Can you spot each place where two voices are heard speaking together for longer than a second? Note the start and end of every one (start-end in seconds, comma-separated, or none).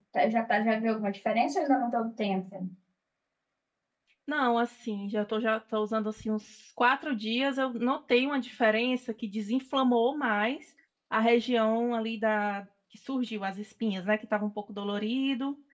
none